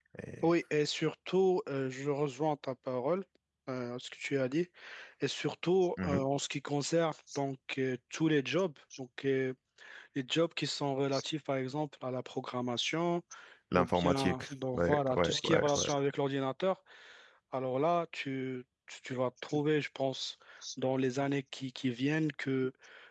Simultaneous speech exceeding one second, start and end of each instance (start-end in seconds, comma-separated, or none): 13.8-15.9